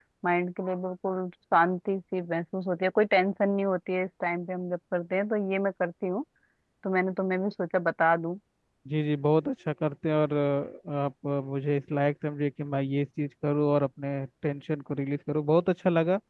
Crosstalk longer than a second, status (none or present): none